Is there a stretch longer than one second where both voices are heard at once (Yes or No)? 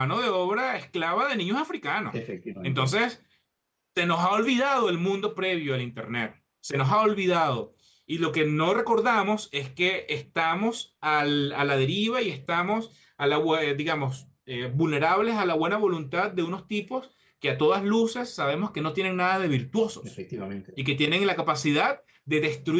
No